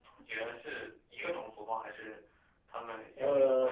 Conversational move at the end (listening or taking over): taking over